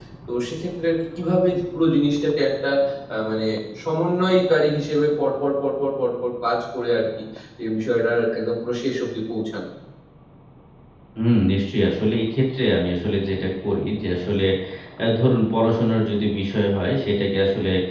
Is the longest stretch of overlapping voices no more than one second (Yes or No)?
Yes